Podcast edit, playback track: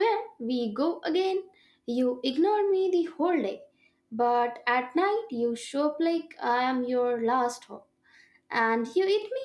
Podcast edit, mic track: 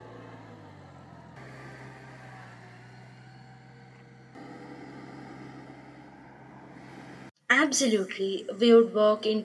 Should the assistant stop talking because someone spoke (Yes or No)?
Yes